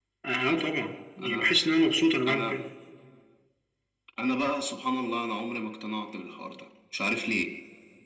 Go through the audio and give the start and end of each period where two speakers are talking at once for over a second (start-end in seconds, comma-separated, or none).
none